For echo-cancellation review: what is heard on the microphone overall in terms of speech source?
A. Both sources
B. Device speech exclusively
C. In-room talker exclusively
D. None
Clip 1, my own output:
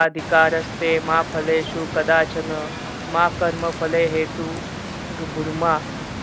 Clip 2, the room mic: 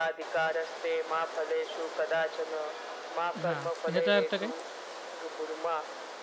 A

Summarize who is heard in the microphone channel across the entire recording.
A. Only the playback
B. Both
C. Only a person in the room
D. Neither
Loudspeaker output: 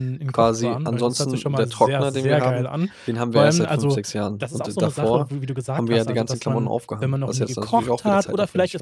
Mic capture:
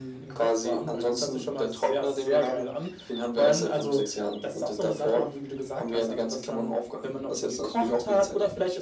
A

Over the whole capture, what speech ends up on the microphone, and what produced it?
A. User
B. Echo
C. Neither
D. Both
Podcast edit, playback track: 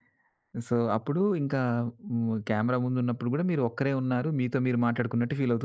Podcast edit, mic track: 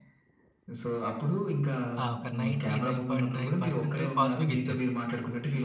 D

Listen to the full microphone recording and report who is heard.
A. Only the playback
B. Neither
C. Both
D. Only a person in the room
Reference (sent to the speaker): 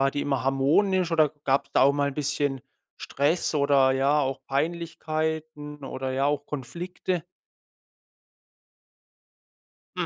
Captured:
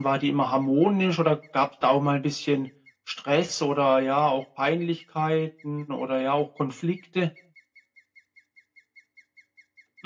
A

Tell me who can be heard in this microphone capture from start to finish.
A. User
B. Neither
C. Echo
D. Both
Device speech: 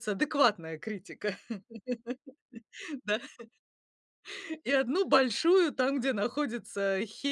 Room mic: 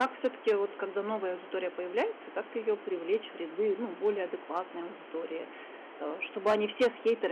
A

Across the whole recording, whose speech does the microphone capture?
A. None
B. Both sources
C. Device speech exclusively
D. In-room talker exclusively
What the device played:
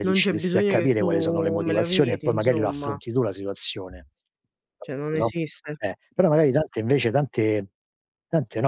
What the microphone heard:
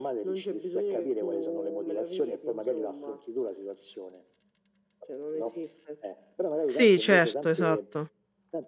B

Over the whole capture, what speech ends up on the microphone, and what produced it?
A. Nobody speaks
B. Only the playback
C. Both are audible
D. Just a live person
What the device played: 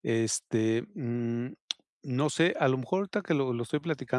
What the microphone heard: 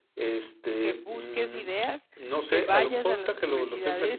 C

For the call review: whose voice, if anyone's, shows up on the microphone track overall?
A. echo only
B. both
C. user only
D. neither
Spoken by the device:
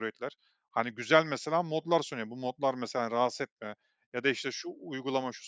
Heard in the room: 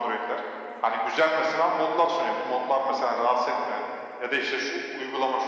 A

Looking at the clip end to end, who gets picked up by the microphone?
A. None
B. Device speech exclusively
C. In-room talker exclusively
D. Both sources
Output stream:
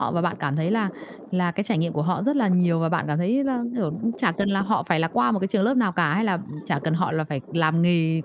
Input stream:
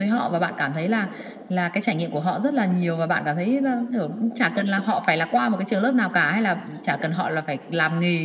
B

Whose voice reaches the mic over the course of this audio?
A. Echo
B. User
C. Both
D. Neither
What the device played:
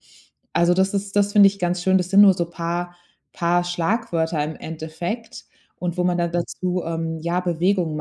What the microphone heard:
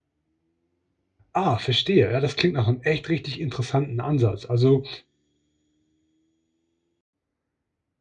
B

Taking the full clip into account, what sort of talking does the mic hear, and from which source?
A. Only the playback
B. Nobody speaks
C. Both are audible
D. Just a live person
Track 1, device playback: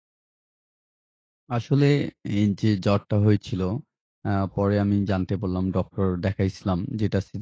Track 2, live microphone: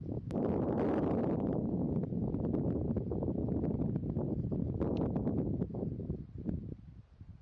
B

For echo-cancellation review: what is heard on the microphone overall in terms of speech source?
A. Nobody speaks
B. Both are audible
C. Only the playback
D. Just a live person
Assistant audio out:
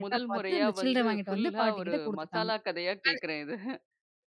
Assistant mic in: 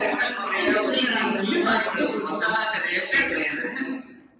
C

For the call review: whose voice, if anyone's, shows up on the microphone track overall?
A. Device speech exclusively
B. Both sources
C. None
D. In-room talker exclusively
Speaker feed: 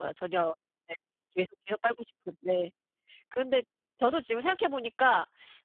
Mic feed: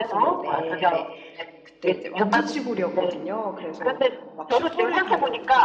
B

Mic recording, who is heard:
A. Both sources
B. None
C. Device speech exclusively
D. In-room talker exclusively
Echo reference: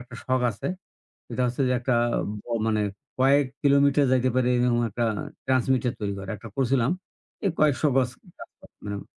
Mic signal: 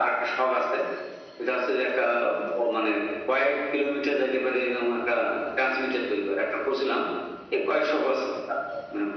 C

